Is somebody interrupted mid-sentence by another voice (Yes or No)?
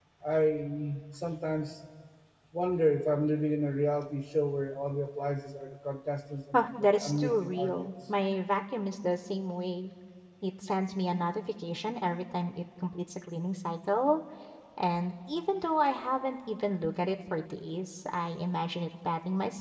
Yes